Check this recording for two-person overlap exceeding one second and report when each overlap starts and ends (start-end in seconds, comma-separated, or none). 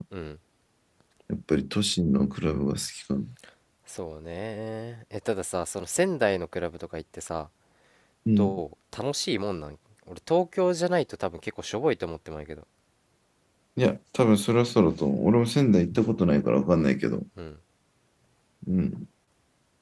none